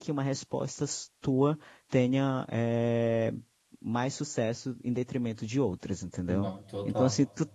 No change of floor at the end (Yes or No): Yes